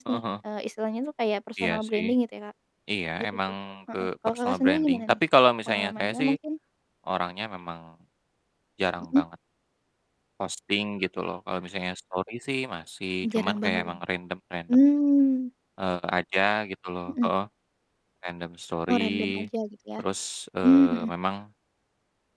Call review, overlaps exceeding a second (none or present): present